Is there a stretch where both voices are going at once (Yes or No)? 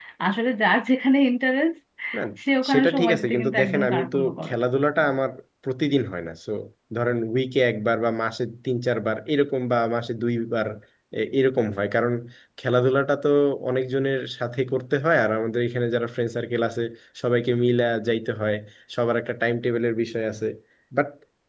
Yes